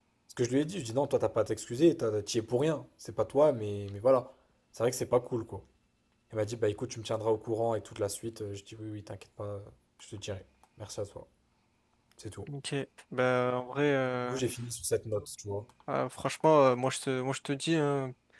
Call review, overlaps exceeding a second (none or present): none